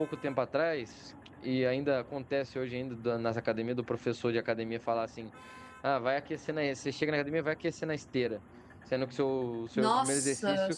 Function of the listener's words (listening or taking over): listening